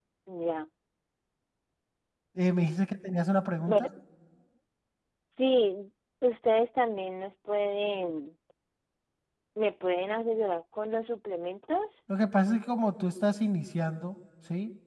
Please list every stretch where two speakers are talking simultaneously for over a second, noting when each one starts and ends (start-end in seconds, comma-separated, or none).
none